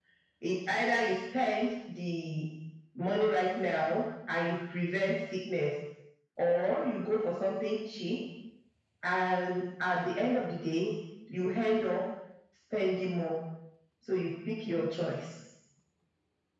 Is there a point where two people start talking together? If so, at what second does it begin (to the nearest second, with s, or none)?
none